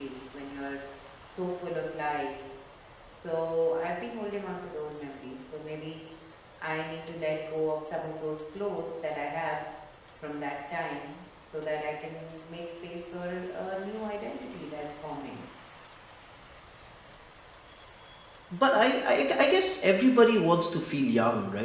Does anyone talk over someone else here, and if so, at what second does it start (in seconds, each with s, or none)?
none